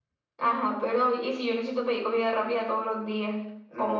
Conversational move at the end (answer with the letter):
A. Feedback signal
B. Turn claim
B